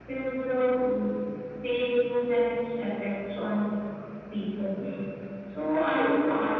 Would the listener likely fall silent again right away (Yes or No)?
Yes